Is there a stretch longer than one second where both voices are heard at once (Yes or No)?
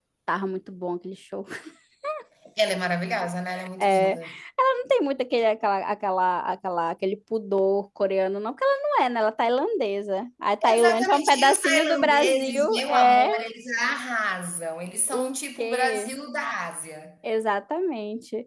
Yes